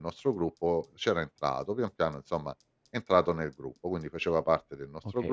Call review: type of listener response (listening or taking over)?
taking over